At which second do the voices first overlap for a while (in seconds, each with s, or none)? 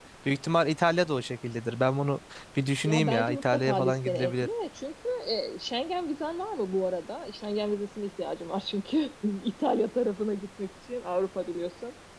2.8 s